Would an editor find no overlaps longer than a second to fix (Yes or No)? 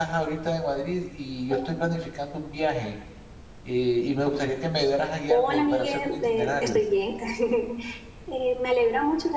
No